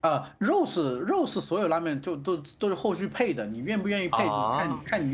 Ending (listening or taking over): listening